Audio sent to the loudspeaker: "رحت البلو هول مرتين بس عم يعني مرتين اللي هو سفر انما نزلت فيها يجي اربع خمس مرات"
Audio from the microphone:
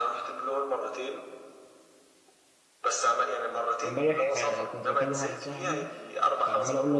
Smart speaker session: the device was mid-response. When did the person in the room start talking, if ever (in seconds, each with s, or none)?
3.8 s